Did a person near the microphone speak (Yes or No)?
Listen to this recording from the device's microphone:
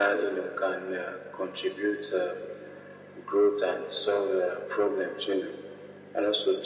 No